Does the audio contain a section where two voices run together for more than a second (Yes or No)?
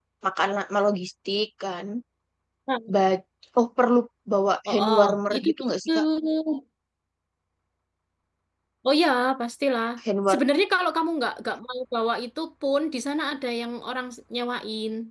Yes